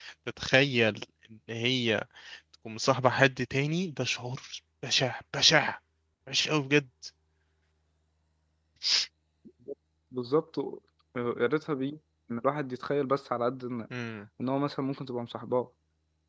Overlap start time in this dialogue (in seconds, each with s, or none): none